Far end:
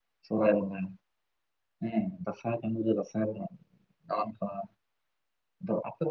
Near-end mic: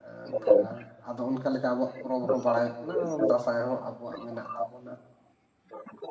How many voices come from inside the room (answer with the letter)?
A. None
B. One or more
B